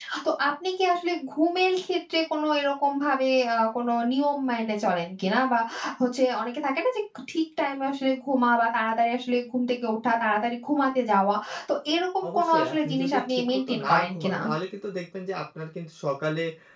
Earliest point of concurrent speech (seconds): 12 s

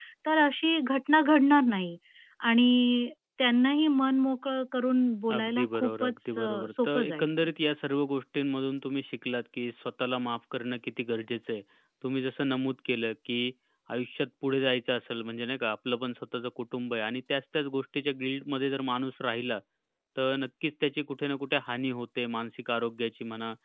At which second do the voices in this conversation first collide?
5 s

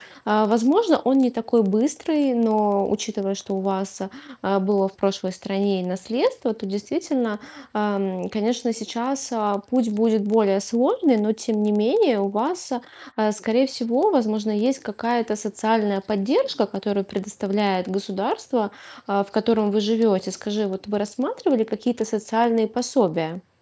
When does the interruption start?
none

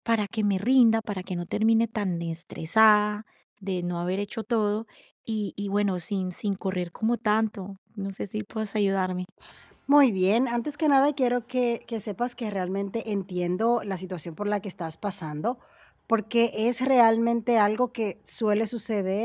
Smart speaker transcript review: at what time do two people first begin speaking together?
none

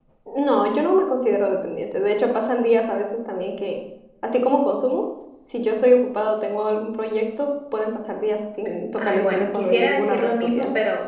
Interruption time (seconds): 9 s

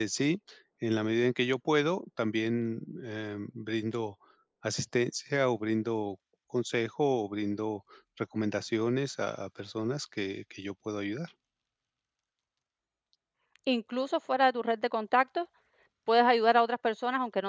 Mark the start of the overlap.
none

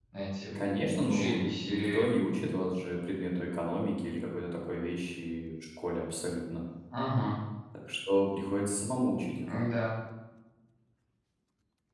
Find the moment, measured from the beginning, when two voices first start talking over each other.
1 s

